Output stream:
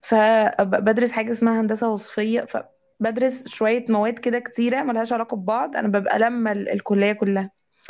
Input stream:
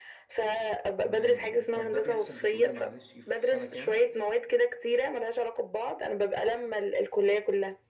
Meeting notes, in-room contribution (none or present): present